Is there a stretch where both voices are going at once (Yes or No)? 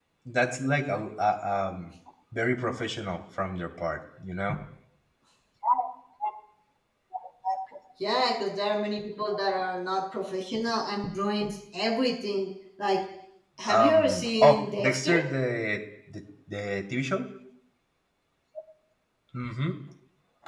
Yes